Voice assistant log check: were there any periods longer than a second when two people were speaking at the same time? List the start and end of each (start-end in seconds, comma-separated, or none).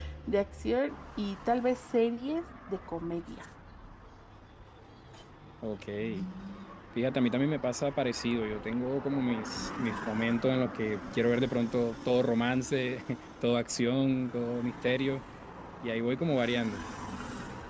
none